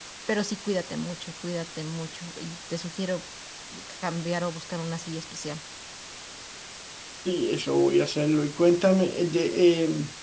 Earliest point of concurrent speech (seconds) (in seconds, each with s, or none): none